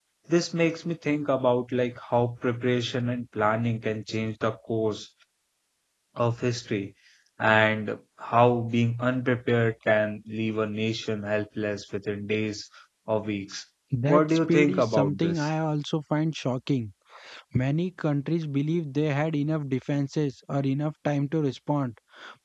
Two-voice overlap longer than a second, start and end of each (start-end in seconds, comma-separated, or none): 14.1-15.5